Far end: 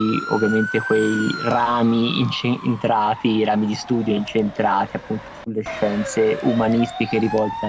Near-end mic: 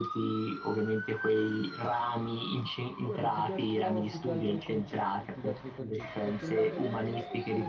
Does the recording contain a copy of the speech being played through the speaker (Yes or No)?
Yes